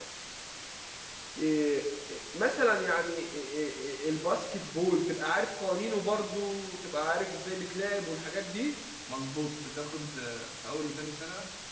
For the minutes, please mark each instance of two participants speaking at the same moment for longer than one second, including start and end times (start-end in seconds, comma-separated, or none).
none